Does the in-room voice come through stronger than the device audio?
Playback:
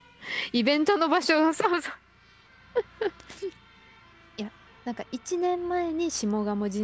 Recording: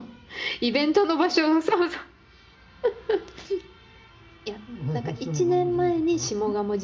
No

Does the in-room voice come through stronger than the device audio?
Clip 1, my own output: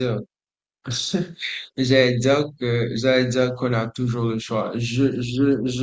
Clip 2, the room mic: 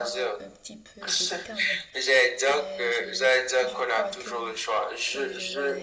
No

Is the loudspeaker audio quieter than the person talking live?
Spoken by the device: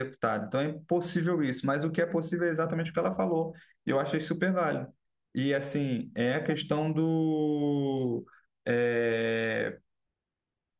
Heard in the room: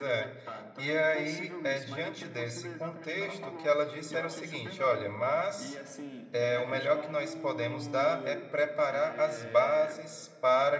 Yes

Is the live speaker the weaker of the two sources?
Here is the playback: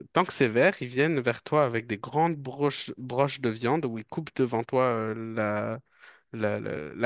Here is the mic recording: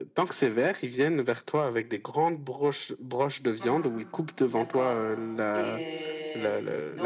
Yes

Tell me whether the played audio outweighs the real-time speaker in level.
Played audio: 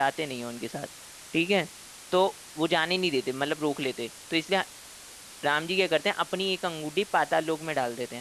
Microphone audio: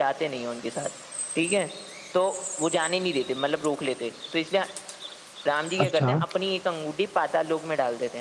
No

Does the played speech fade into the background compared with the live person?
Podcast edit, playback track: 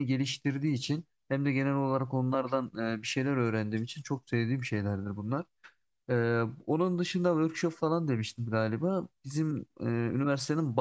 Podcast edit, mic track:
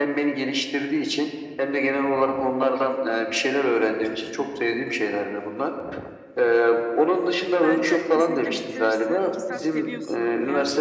No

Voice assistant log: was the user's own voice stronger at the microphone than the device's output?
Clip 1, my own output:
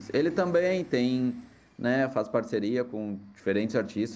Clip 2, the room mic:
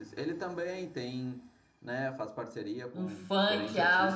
Yes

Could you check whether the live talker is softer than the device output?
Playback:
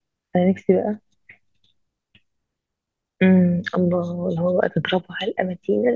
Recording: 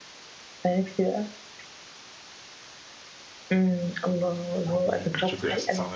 Yes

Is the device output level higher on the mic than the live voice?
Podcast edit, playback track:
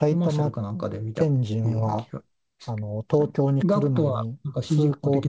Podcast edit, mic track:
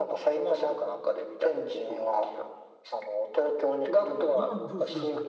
Yes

